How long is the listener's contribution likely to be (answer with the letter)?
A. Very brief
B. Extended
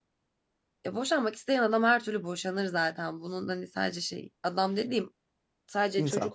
A